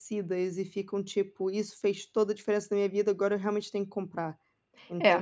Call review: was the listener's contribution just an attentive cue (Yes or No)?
No